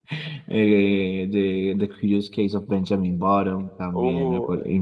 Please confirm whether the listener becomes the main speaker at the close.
No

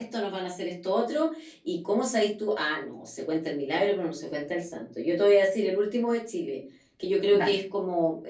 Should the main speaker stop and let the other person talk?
No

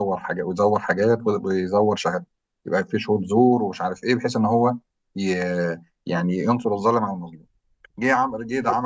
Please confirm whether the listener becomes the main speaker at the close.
No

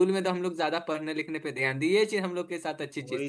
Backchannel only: No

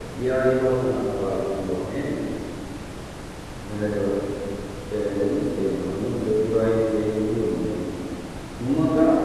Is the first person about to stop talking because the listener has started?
No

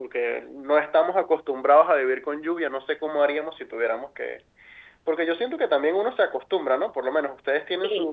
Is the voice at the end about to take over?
No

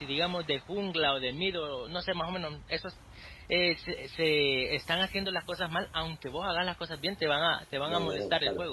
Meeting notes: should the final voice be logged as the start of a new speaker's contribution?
Yes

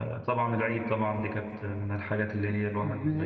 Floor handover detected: Yes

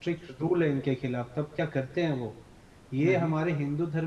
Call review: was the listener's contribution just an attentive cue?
Yes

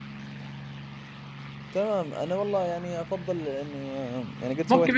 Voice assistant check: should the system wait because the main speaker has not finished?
No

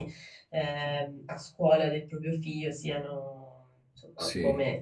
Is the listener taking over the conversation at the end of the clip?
No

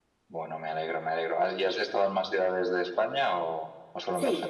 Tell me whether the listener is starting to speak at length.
Yes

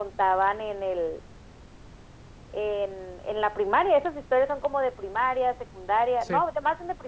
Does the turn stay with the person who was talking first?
Yes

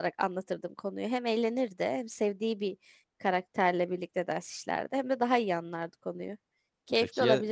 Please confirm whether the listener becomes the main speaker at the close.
Yes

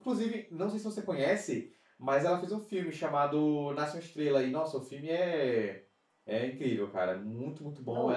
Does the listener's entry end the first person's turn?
Yes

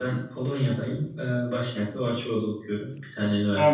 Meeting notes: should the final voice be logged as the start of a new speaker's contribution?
Yes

